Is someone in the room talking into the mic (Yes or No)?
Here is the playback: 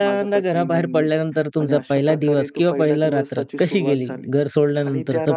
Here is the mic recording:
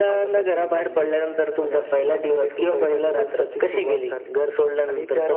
No